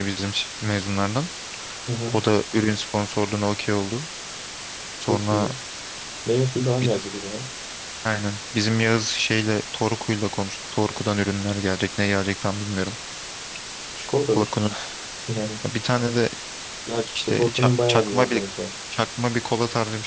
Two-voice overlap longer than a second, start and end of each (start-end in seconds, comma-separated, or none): 17.2-18.4